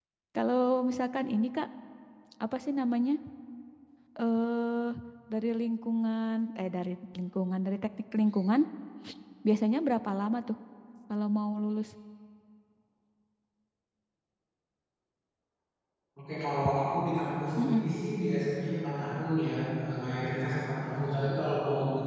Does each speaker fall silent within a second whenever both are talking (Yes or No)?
Yes